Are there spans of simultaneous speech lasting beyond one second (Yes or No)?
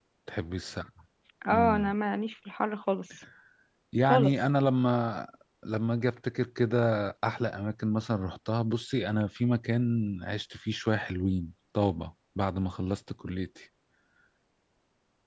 No